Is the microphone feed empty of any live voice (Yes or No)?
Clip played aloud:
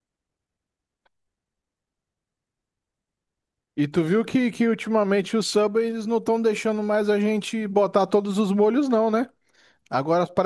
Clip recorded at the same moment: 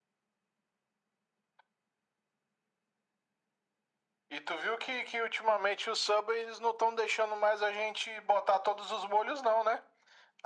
Yes